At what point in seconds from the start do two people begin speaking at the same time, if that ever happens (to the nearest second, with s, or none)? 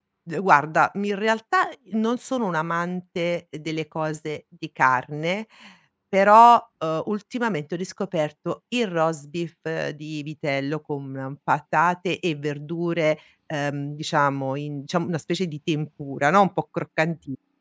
none